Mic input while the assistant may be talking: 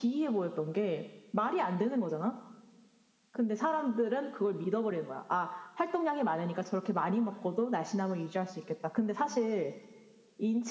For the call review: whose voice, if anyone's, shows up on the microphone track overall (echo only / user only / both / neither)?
echo only